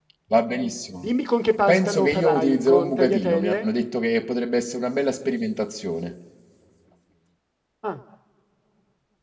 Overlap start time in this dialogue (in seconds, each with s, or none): 1.7 s